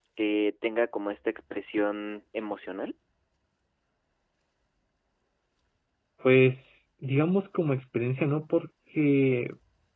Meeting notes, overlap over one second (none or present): none